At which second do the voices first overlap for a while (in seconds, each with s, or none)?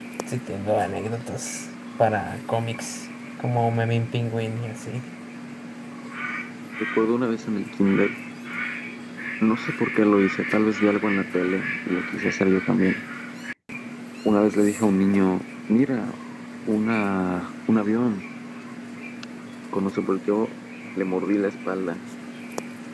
none